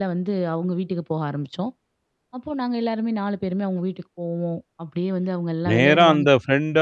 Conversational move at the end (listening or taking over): taking over